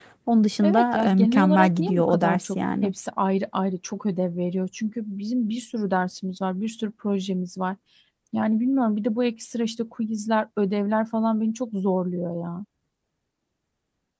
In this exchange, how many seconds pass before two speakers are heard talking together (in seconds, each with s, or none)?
0.6 s